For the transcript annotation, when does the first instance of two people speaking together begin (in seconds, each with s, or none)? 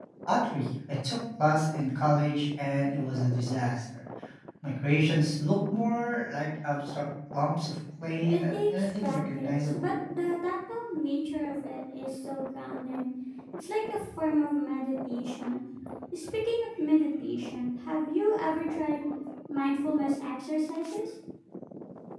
8.3 s